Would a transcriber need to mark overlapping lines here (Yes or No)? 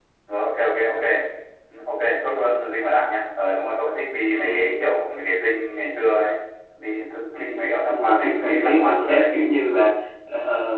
Yes